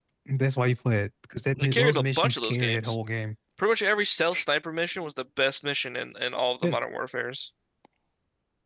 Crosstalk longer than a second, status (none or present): present